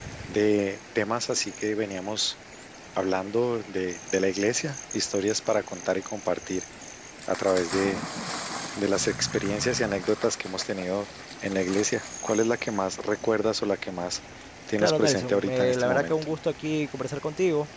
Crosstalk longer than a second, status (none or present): present